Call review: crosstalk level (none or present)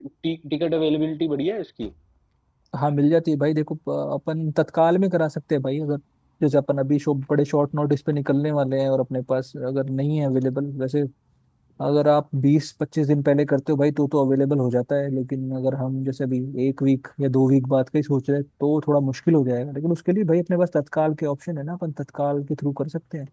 none